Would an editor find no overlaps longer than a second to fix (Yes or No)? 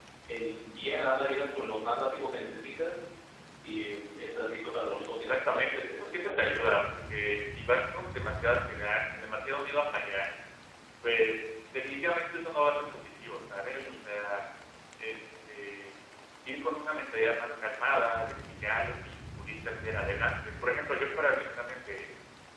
No